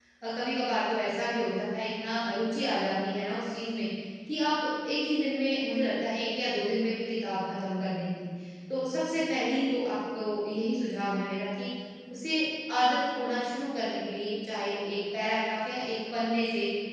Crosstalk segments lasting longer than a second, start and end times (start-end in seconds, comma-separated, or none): none